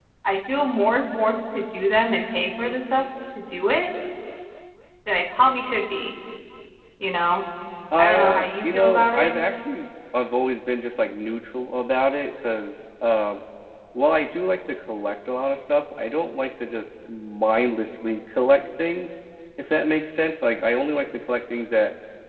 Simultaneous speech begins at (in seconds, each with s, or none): 8.0 s